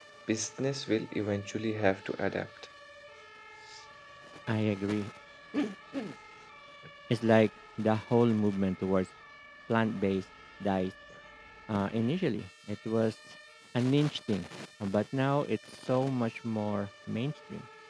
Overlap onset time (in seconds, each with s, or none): none